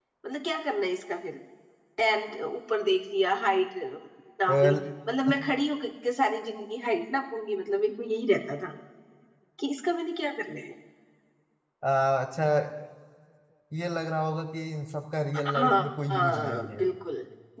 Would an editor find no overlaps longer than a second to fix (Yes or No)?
No